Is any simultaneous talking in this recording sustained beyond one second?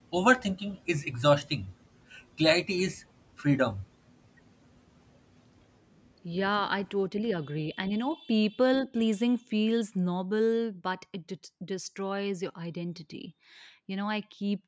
No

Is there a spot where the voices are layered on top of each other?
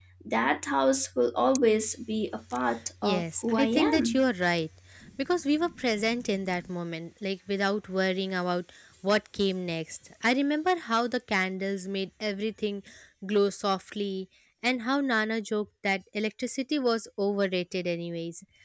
Yes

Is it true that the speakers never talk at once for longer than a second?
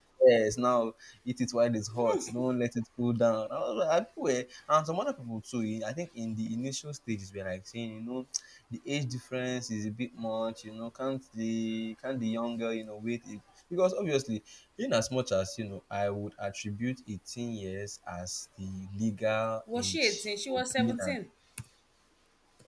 No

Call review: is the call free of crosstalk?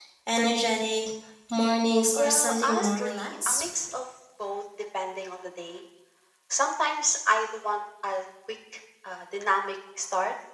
No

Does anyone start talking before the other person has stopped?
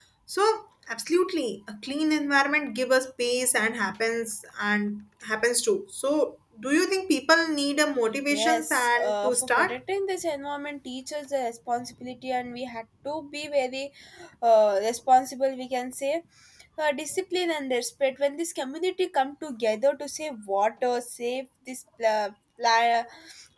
Yes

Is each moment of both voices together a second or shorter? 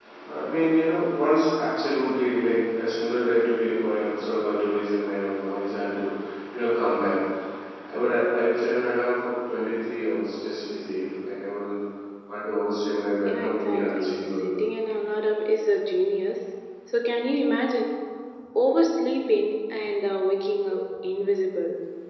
No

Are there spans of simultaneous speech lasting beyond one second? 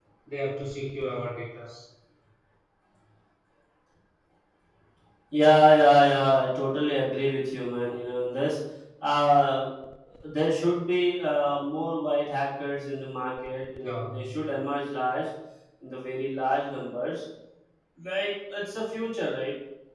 No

